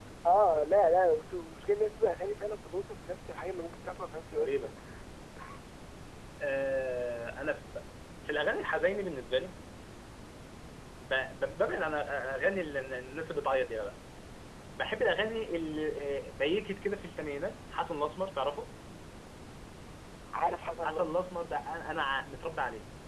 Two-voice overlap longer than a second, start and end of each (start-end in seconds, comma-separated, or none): none